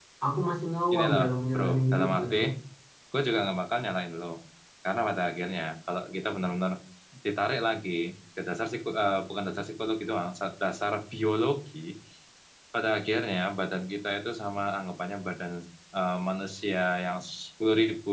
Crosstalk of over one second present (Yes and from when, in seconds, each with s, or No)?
Yes, from 0.9 s